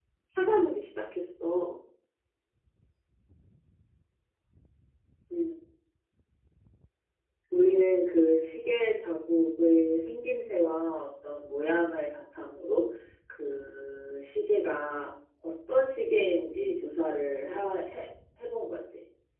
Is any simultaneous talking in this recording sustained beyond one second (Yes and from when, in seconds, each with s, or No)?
No